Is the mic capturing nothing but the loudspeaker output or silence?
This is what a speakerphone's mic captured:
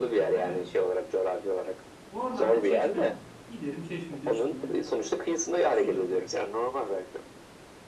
No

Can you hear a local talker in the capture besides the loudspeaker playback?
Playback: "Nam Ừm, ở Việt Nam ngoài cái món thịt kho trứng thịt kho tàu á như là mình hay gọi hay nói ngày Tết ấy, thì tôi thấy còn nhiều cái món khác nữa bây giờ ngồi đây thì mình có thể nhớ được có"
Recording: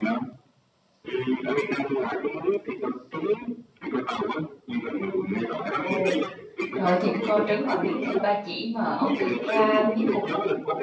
Yes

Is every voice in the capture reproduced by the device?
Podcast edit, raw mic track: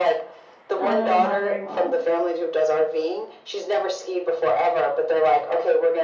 No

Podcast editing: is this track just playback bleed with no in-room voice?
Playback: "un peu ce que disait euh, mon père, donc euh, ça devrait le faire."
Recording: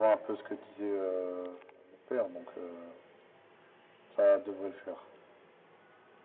Yes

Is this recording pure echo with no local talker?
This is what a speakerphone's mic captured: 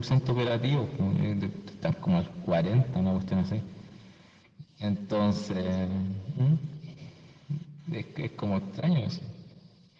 Yes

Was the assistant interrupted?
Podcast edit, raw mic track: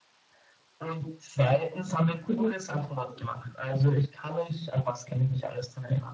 Yes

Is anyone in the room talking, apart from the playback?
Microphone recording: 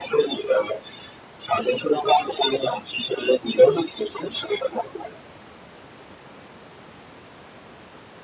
No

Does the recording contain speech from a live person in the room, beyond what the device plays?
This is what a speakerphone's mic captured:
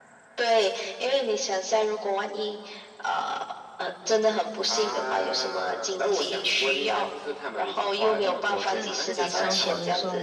Yes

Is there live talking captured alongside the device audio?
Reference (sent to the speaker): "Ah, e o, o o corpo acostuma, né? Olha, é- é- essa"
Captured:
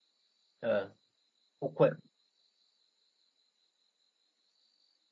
Yes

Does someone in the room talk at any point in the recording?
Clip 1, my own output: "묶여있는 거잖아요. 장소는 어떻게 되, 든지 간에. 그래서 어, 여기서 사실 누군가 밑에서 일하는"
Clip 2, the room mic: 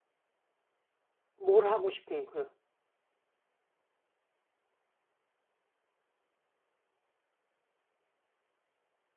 Yes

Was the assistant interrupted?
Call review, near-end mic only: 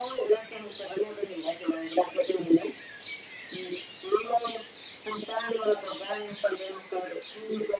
No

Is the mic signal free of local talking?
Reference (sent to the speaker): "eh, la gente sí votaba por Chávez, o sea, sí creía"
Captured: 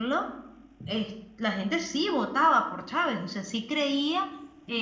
Yes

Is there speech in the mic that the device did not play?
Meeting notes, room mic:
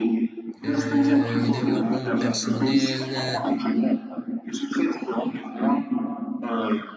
Yes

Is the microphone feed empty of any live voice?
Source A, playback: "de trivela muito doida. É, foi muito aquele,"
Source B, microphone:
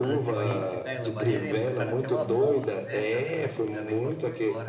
No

